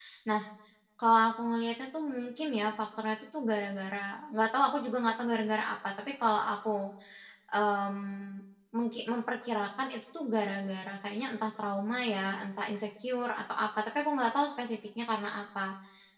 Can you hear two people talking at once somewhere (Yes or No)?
No